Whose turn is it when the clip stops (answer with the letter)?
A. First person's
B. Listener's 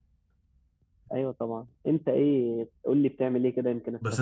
B